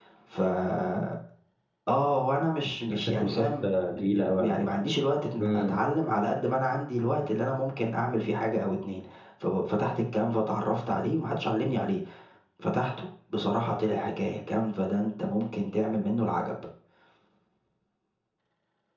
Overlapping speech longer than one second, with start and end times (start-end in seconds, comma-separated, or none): 2.9-4.6